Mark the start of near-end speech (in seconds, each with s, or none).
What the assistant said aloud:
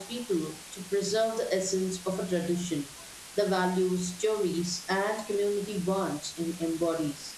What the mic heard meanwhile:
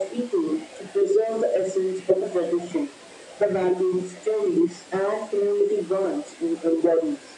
none